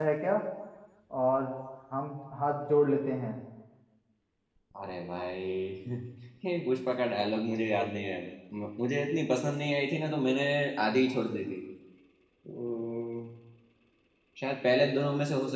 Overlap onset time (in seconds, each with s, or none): none